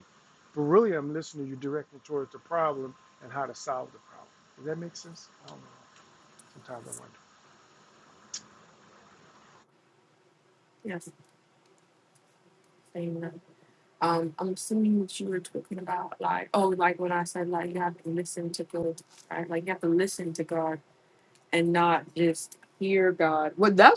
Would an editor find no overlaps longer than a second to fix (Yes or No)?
Yes